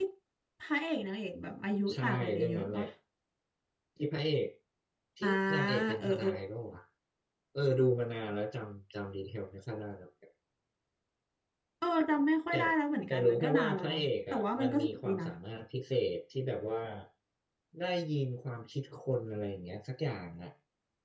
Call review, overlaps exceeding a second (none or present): present